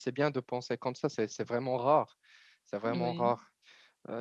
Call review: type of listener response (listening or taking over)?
listening